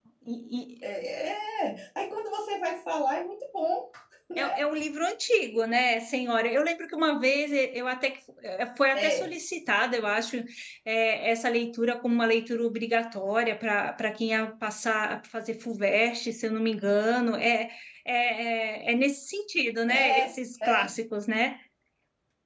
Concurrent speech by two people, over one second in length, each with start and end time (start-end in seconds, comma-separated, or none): none